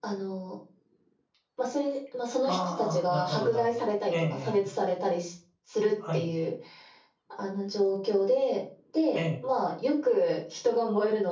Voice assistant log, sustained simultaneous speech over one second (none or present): present